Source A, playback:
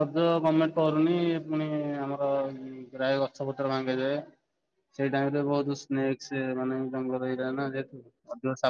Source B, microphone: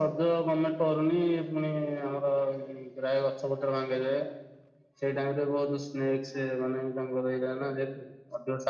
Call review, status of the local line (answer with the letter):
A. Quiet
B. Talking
A